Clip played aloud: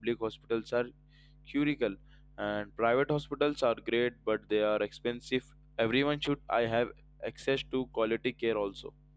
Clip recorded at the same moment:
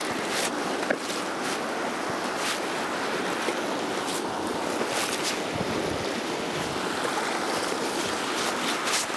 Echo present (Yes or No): No